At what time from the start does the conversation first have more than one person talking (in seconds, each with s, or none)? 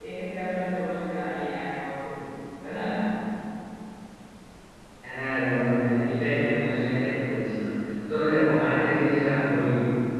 none